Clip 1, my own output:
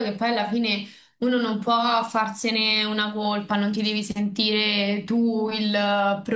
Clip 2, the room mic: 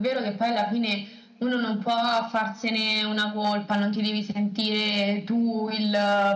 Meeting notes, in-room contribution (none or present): none